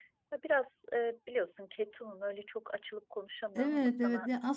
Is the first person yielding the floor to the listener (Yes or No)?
Yes